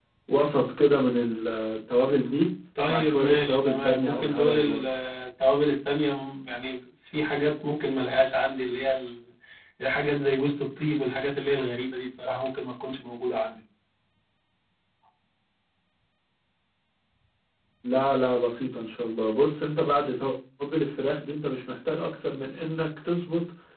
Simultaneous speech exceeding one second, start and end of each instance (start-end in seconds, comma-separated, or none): 2.9-4.8